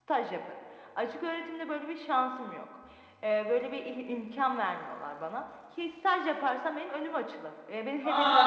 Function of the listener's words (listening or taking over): taking over